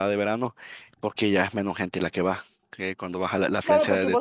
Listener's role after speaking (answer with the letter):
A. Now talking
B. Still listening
A